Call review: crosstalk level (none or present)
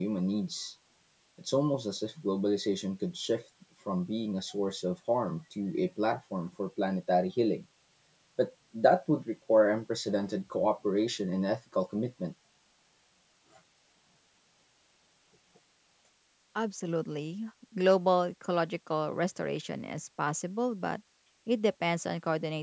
none